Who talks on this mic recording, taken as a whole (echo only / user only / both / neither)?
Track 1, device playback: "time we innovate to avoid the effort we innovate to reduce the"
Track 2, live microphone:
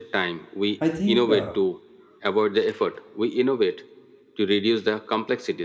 both